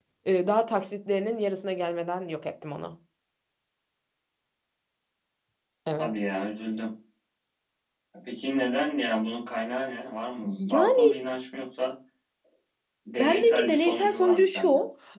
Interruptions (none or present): present